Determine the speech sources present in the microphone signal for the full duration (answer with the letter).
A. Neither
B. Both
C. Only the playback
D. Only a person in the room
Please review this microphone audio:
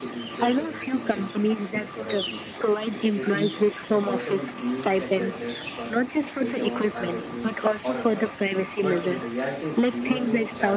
B